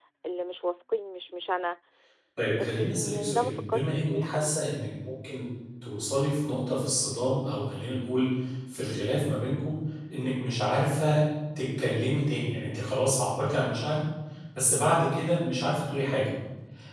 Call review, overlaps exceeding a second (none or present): present